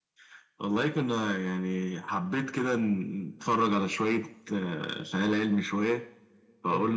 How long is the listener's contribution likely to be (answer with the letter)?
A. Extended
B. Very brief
B